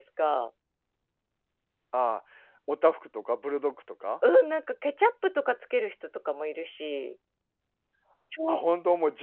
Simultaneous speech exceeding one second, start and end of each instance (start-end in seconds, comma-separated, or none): none